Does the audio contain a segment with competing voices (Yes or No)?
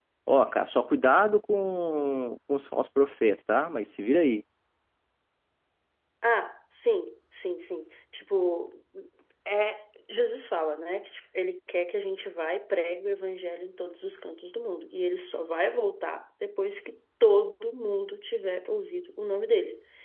No